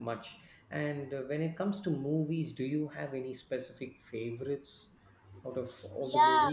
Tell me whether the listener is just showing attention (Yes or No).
No